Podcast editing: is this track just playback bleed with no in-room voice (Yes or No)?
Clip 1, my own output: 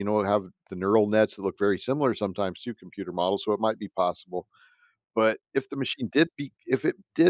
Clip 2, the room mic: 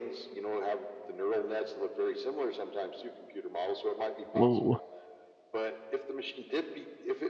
No